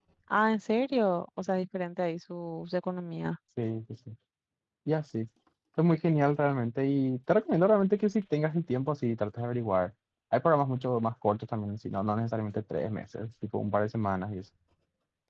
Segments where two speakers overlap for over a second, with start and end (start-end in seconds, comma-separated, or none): none